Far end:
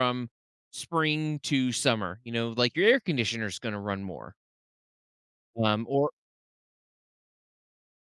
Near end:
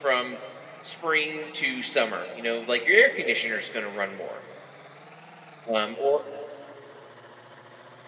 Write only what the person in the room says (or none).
none